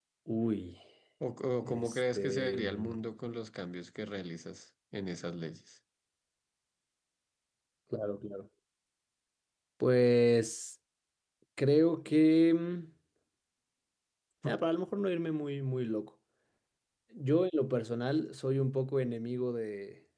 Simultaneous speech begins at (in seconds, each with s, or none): 1.6 s